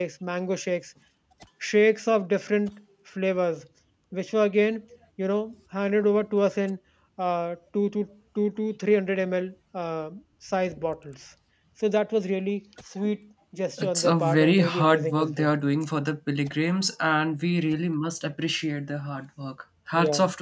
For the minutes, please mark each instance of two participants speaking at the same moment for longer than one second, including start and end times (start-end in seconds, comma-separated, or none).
13.8-15.5